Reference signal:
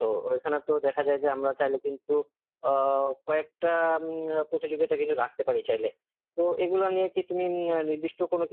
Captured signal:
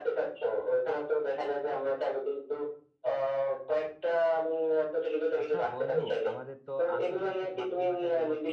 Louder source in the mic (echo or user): echo